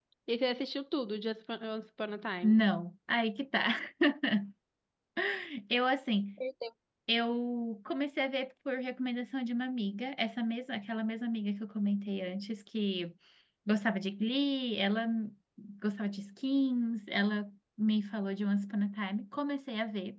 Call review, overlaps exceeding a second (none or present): none